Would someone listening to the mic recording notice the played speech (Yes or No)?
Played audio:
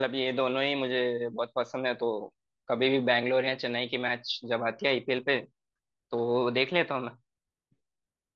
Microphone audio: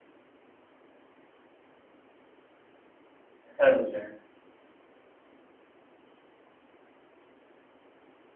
No